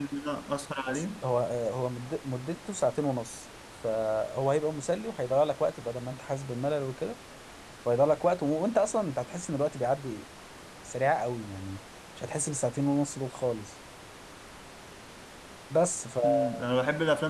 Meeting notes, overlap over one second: none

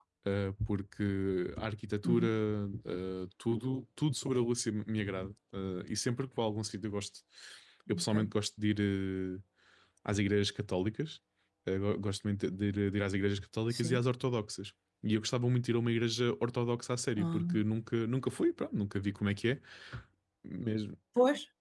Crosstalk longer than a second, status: none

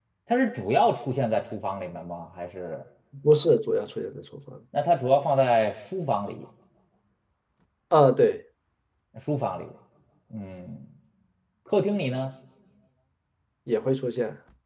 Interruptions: none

